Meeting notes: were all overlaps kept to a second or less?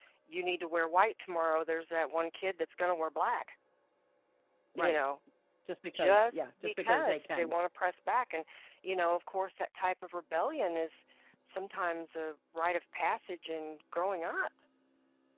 No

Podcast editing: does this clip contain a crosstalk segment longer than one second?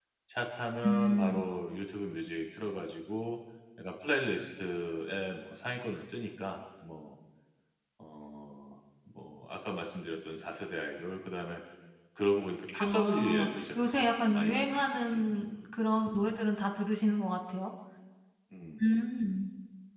Yes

